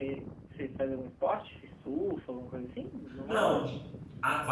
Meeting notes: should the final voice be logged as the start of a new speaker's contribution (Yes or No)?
Yes